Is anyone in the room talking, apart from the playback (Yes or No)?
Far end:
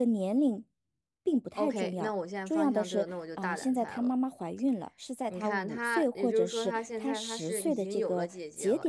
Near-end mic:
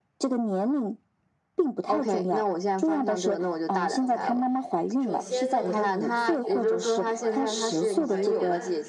Yes